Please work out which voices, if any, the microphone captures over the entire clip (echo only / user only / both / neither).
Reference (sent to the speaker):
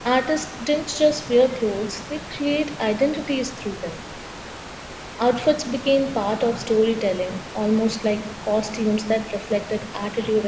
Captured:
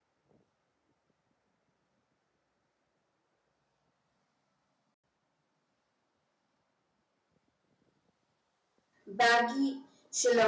user only